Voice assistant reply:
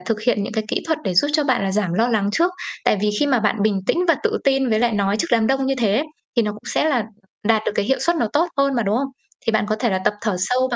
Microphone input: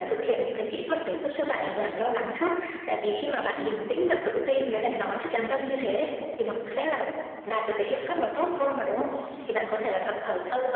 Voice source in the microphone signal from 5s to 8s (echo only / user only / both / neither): echo only